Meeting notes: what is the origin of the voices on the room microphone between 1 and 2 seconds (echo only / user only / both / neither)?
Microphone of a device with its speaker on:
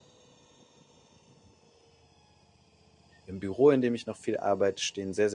neither